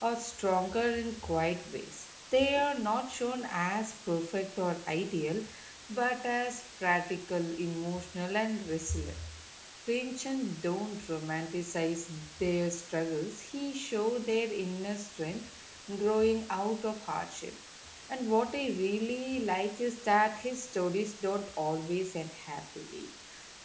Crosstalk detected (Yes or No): No